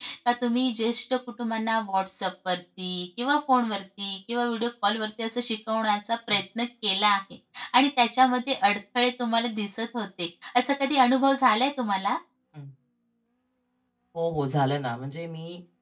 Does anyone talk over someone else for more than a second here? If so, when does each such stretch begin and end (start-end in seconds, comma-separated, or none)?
none